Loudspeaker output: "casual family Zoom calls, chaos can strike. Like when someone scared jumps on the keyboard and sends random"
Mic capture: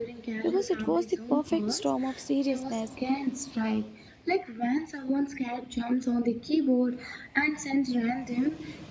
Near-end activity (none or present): present